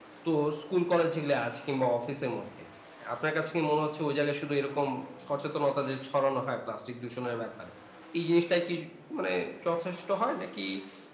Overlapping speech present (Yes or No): No